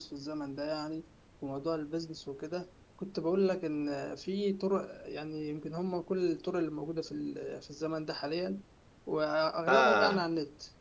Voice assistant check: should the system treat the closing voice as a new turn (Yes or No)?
No